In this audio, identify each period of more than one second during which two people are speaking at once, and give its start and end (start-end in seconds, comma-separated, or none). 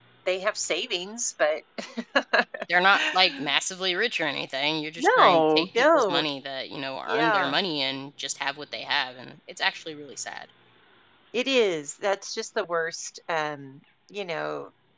5.0-6.2